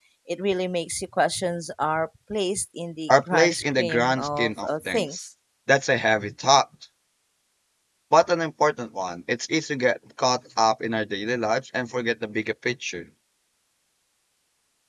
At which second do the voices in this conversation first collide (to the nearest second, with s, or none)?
3 s